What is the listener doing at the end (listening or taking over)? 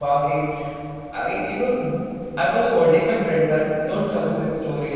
listening